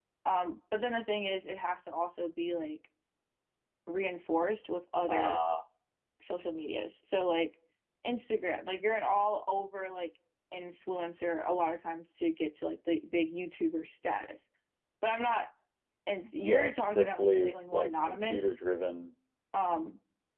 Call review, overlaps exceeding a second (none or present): present